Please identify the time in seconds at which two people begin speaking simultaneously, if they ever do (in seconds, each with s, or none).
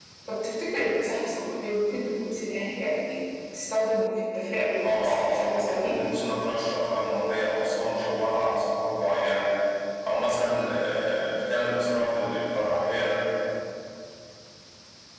4.8 s